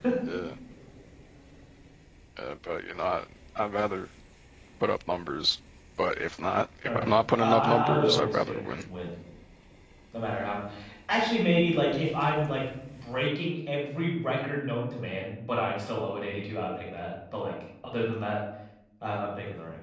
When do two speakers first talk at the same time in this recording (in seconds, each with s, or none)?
6.8 s